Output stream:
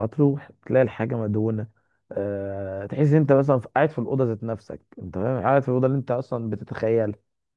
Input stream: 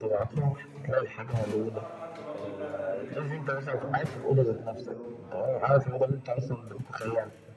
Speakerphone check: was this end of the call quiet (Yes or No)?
No